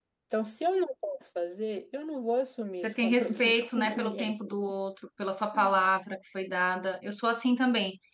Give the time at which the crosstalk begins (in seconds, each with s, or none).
2.8 s